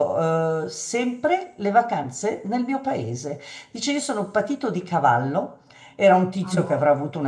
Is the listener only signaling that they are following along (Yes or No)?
Yes